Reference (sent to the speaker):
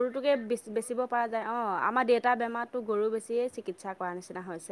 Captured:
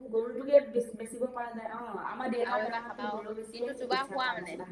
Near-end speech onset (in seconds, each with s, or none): 2.5 s